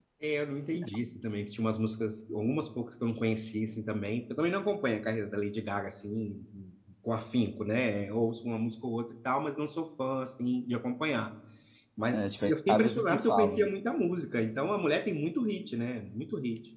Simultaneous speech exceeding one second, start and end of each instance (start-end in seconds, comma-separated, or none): 12.1-13.7